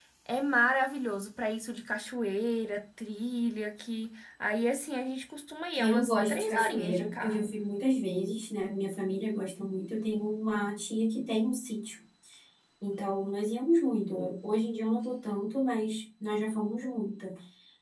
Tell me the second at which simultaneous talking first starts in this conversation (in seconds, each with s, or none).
5.8 s